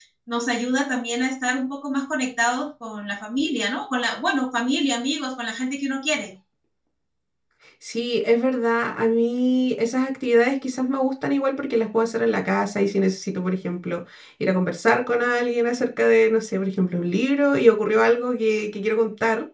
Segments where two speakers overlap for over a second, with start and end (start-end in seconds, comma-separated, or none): none